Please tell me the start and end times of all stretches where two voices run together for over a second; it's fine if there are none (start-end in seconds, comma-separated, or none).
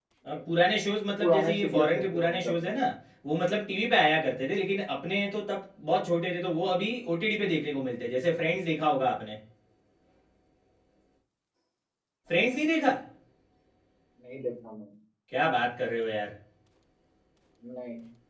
1.2-2.7